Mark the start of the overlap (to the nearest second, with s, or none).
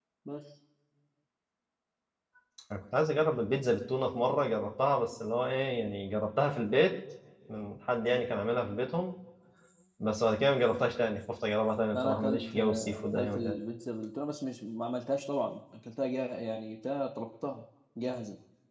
12 s